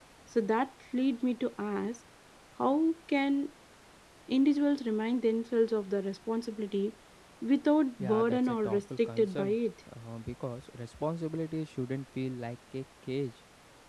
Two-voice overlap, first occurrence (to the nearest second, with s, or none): 8 s